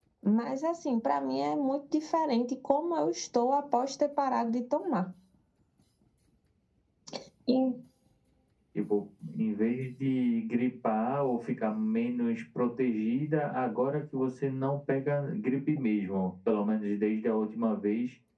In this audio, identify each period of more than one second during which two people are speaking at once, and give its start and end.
none

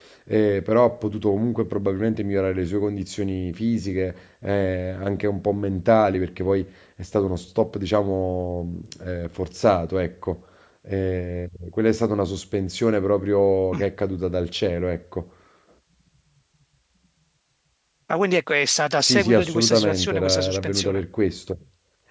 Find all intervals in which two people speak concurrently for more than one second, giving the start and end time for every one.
19.0-21.0

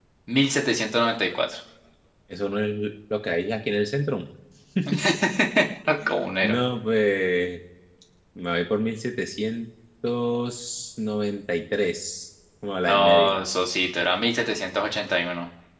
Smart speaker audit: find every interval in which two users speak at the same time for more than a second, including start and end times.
none

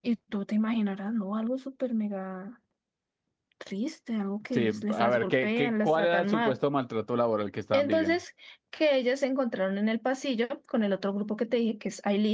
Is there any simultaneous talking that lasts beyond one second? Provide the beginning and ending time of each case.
4.5-6.6

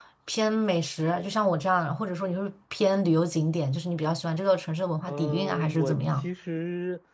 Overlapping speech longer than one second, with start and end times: 5.1-6.3

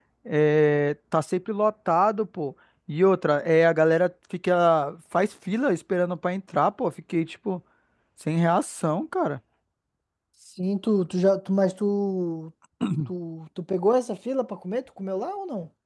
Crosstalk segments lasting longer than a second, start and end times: none

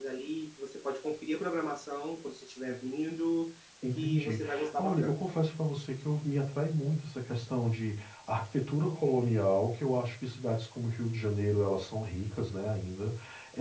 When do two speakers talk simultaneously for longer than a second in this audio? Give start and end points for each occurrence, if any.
4.0-5.2

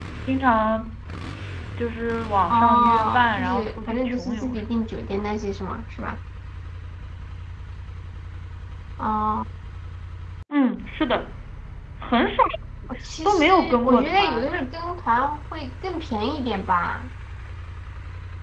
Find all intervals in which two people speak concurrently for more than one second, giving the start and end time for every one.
2.5-4.7, 13.2-14.5

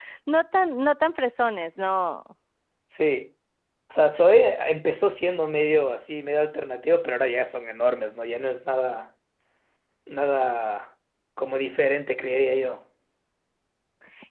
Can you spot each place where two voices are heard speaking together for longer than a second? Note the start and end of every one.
none

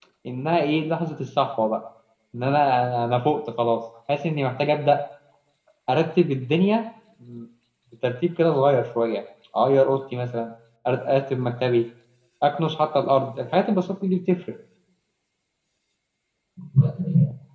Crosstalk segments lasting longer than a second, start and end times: none

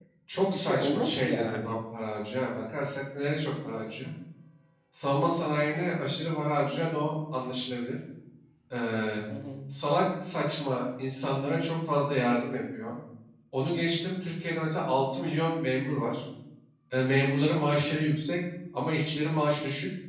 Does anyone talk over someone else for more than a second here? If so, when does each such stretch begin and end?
0.5-1.8

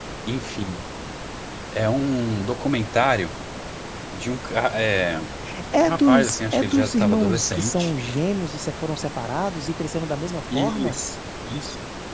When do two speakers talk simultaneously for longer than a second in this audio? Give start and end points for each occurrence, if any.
5.8-7.9

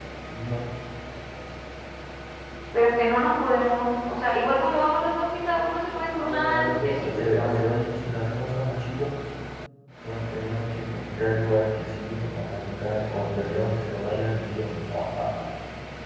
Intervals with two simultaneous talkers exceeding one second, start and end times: 6.2-7.5

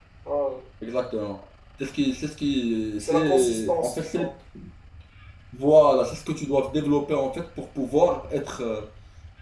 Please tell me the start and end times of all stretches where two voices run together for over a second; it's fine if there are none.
3.0-4.2

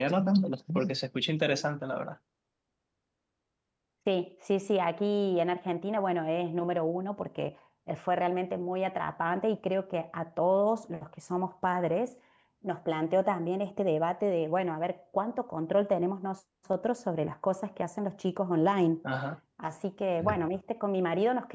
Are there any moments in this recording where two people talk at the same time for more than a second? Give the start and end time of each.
none

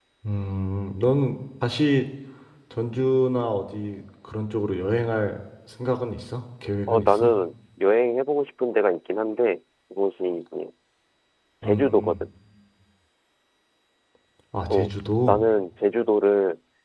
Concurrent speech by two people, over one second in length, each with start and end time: none

